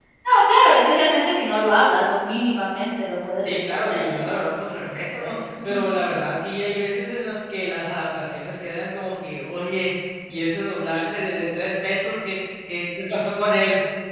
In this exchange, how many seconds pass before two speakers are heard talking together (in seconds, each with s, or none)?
3.4 s